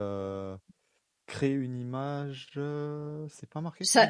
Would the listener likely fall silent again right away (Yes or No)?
No